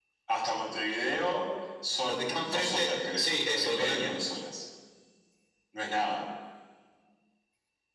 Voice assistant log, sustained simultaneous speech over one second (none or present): present